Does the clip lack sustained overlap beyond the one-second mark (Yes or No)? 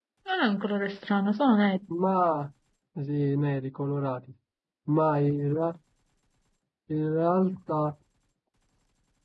Yes